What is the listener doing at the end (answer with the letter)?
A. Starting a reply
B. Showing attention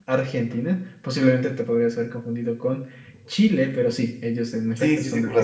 A